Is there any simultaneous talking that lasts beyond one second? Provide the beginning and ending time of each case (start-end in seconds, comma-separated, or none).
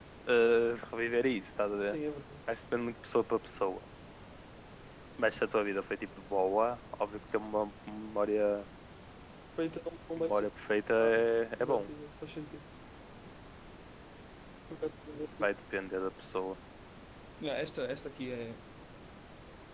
none